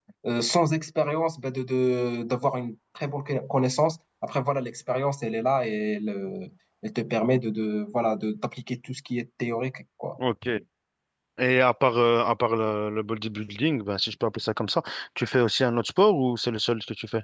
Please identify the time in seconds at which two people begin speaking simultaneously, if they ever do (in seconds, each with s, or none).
none